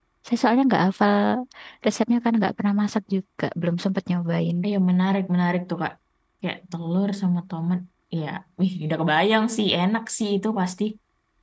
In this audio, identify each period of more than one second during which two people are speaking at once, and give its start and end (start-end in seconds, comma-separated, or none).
none